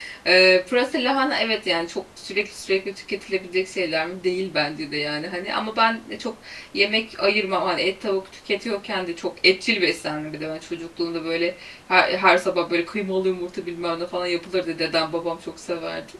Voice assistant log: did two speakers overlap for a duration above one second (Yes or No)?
No